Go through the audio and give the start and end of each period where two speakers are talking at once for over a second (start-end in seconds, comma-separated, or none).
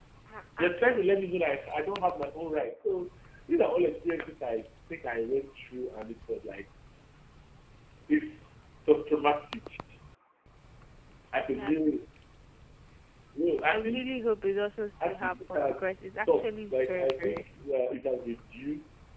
15.1-17.4